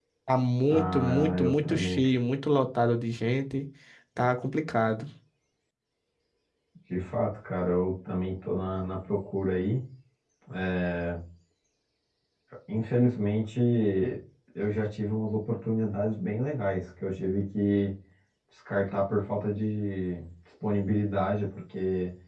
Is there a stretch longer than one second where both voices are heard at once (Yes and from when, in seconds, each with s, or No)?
Yes, from 0.7 s